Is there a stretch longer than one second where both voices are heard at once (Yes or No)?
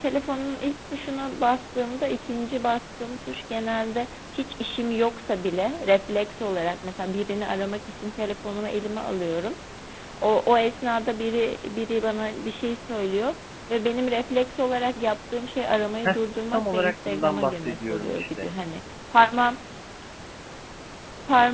Yes